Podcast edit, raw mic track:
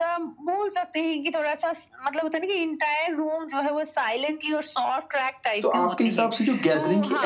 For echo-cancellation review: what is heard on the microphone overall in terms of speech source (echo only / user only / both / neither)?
both